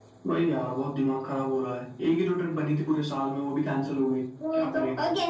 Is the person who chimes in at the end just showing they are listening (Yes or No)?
No